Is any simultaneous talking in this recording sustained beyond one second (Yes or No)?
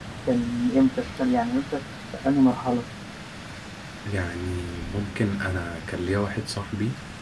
No